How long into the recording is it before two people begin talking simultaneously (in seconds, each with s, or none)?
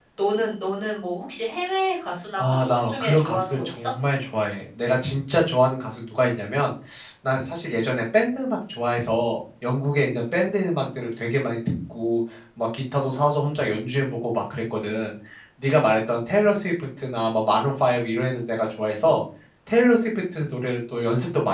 2.4 s